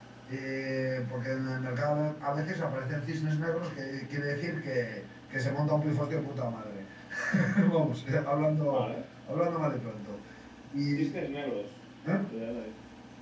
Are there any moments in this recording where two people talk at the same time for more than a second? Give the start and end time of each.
none

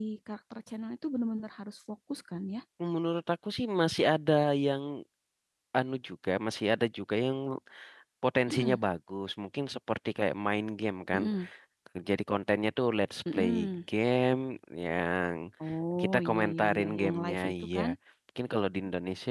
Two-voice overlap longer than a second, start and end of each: 16.0-17.8

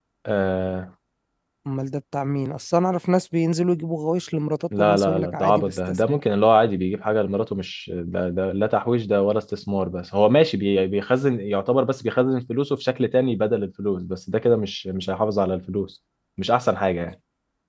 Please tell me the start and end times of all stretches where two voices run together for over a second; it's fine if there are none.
4.8-6.2

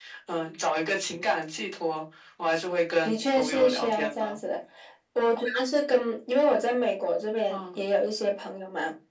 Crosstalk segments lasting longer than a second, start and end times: 3.0-4.4

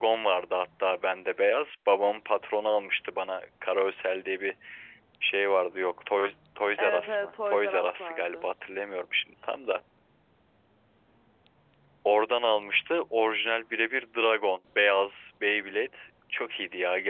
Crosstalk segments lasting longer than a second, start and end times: 6.8-8.4

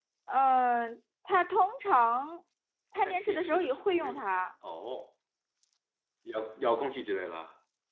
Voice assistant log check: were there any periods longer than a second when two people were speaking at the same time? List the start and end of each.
3.0-4.4

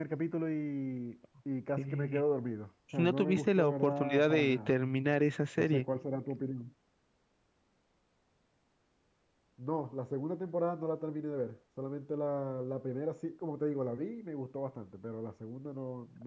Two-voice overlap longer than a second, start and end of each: 3.0-4.7

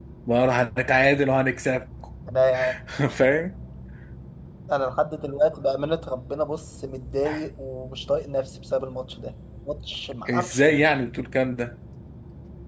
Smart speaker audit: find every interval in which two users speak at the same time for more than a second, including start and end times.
none

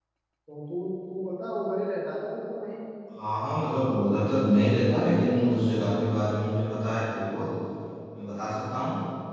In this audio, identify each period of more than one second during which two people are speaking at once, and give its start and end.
none

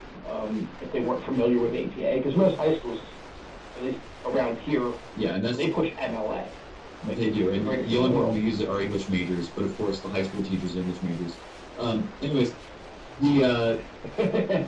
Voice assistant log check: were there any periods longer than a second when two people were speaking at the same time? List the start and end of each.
7.1-8.4

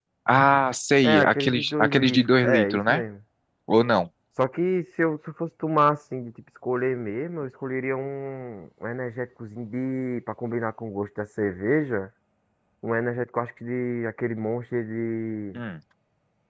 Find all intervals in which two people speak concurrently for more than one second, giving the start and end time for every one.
1.0-3.0

